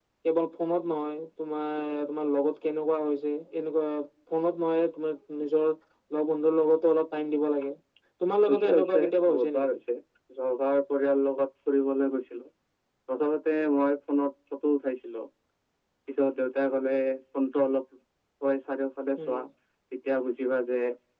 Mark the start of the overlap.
8 s

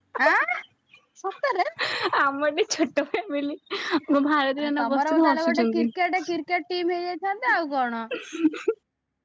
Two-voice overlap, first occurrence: 5 s

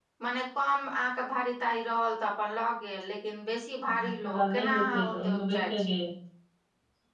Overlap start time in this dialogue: 4 s

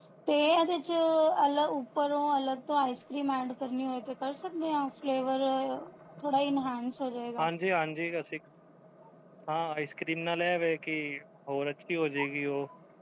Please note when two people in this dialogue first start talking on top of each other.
none

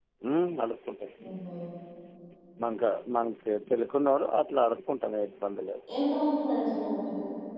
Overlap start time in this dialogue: none

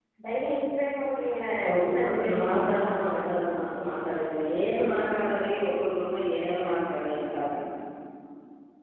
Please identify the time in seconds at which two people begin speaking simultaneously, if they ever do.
2 s

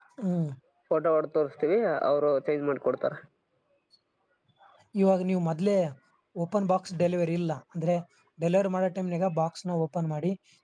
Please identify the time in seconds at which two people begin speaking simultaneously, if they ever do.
none

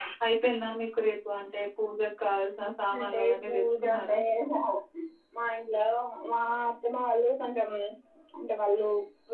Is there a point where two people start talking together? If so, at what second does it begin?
3 s

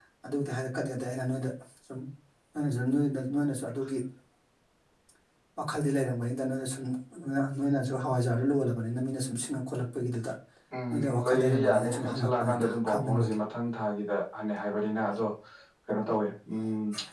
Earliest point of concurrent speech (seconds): 11 s

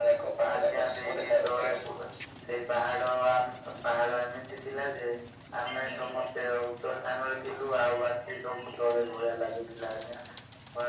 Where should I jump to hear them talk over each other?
1 s

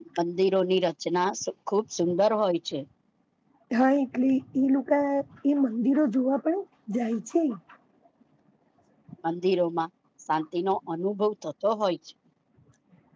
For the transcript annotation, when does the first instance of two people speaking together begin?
none

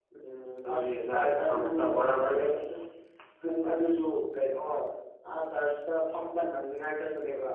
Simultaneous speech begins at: 1 s

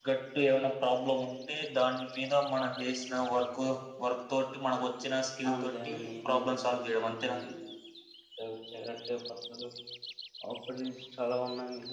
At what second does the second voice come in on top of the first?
5 s

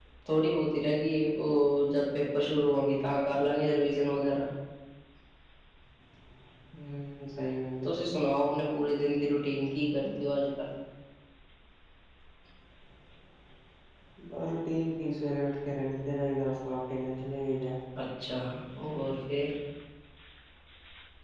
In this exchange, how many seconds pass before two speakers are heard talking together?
none

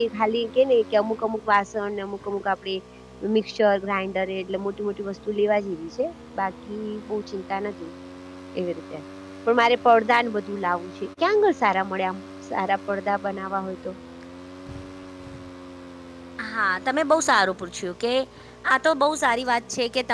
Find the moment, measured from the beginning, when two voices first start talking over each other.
none

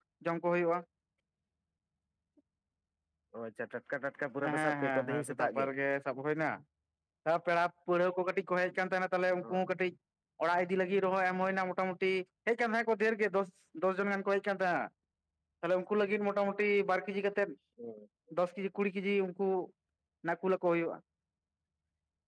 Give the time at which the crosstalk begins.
4 s

